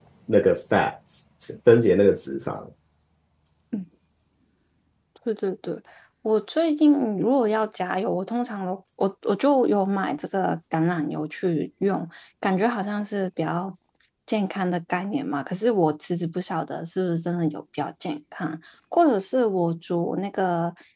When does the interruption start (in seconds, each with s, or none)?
none